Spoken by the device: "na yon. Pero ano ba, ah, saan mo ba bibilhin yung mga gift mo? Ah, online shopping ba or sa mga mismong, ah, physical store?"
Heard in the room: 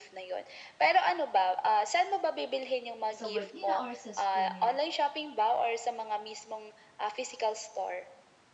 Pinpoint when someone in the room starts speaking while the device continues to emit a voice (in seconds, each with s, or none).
3.1 s